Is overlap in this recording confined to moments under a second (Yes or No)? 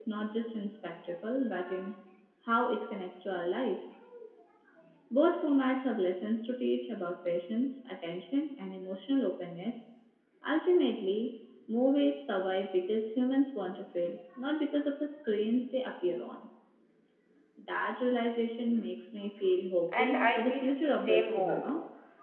No